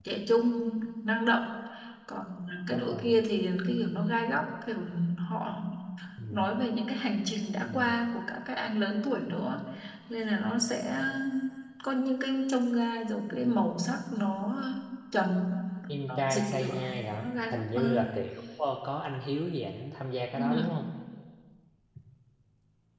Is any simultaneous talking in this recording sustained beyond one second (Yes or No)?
Yes